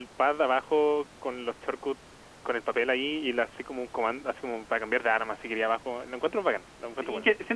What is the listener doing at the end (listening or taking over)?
taking over